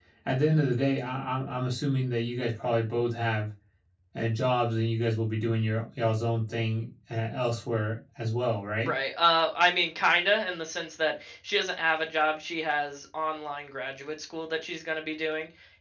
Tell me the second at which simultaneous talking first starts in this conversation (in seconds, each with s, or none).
none